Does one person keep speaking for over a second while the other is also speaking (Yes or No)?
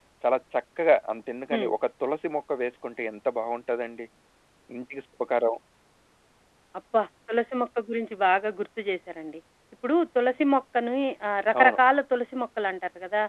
No